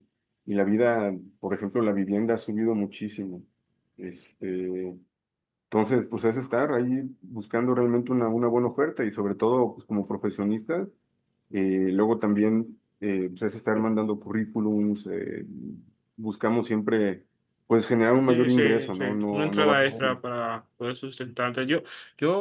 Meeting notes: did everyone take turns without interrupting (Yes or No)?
No